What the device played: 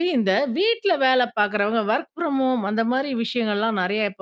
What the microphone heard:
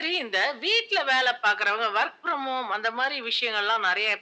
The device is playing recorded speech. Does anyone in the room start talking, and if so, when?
none

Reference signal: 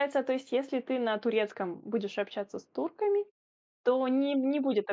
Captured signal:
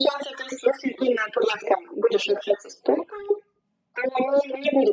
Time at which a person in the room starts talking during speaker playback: none

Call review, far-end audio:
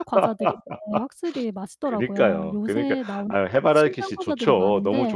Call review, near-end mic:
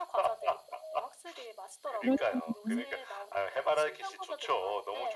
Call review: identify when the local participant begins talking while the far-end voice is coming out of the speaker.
2 s

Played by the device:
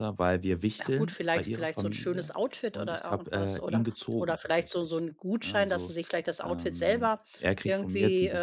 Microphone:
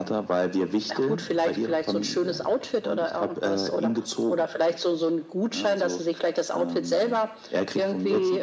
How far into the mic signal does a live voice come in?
none

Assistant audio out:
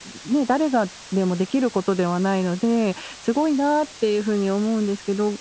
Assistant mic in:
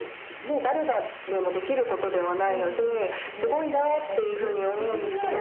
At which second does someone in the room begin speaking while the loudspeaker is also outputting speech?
2 s

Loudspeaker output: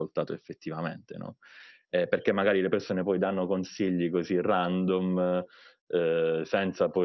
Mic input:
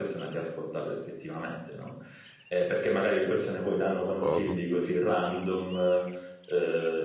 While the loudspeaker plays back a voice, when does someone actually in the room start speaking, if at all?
4 s

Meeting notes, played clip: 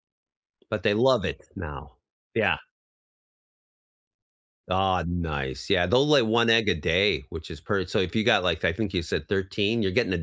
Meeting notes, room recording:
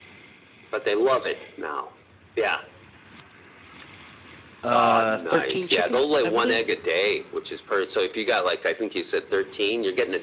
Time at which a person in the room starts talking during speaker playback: 5 s

